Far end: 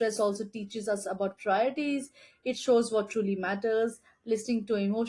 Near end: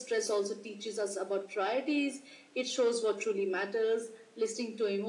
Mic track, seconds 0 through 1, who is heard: echo only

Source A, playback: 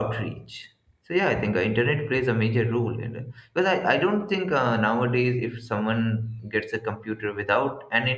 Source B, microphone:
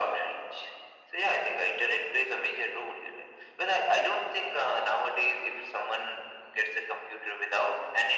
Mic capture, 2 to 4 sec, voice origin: echo only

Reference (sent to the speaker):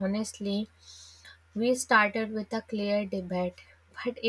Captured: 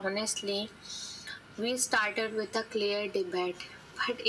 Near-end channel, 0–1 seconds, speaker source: echo only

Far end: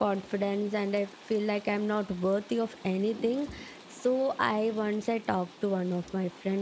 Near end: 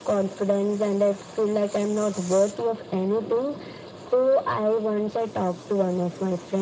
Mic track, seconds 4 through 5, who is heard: echo only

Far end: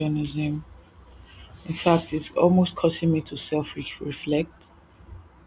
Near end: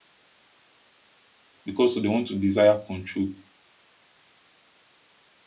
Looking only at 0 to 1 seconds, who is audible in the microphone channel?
neither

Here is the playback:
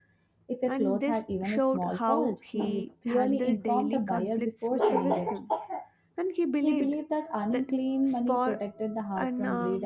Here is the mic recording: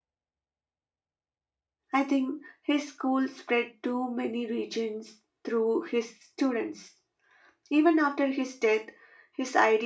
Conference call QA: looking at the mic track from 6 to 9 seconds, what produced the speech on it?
user only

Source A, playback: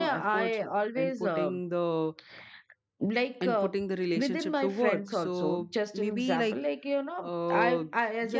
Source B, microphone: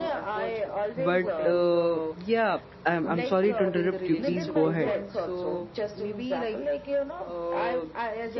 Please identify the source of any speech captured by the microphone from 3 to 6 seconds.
both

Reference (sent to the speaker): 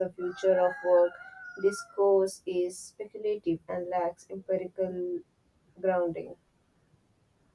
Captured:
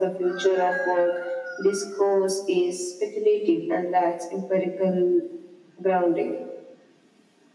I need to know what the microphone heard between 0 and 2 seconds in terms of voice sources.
echo only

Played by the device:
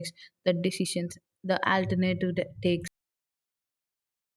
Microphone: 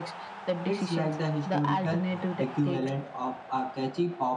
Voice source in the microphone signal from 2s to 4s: both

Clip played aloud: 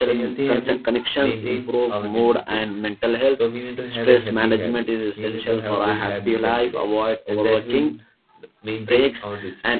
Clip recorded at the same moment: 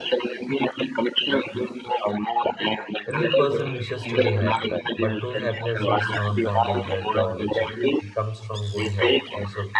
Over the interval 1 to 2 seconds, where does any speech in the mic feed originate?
echo only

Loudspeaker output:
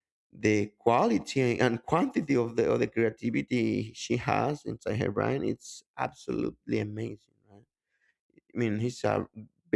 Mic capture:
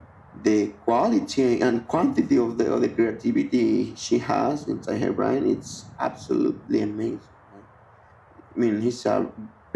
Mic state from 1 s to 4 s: echo only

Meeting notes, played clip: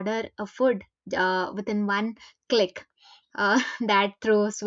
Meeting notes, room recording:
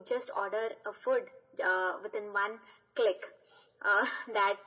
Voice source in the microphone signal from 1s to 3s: echo only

